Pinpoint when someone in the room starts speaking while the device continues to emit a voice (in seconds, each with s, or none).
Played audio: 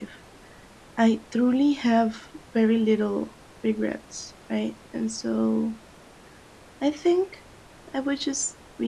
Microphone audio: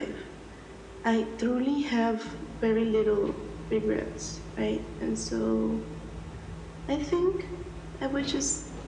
none